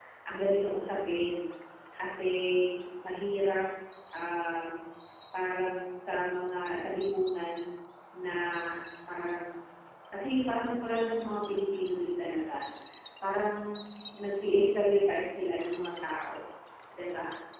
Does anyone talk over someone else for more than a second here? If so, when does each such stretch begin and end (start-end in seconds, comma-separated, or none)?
none